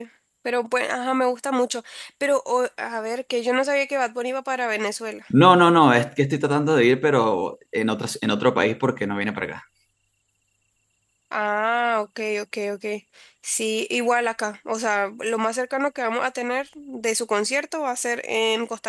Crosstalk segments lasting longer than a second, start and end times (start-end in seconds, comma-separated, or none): none